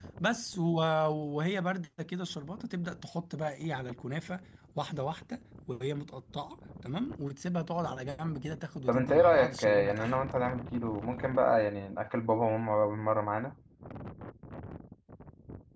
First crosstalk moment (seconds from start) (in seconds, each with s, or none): 8.9 s